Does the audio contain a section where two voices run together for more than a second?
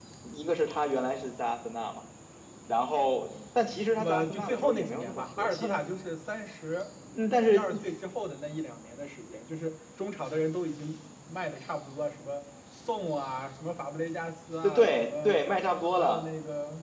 Yes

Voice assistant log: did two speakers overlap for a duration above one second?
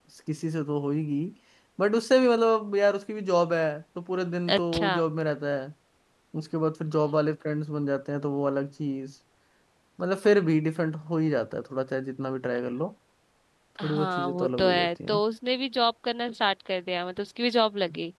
Yes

